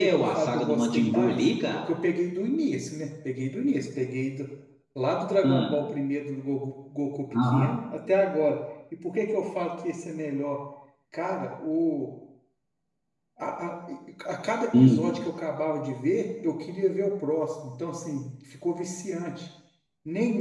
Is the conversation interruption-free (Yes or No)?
No